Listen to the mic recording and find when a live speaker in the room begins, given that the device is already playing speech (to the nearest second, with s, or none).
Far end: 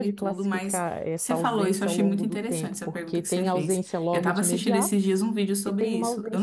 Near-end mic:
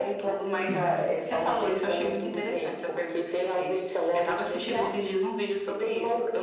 1 s